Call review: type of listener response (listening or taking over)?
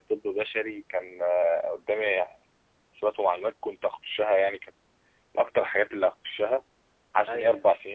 listening